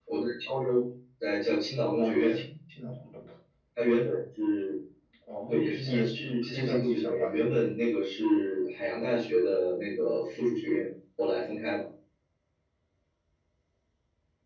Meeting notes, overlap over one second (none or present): present